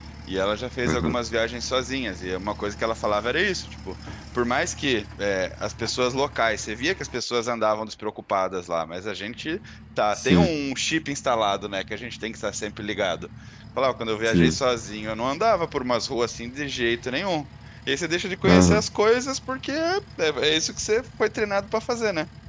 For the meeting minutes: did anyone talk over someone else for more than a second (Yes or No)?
No